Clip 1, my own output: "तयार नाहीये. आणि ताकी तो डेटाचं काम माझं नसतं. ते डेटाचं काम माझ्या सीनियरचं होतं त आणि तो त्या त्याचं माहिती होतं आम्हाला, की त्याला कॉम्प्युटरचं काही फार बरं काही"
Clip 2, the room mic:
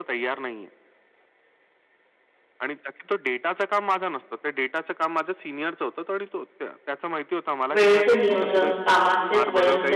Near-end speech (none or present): present